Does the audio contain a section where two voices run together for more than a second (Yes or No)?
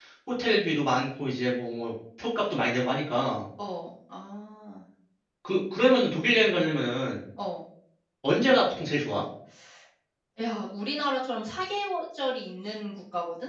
No